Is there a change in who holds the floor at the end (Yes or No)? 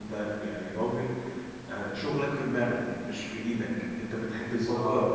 No